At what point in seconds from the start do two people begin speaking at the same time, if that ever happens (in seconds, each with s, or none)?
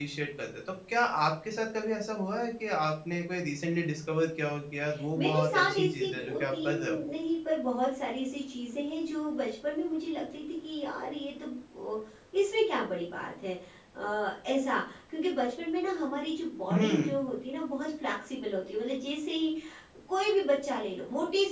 5.2 s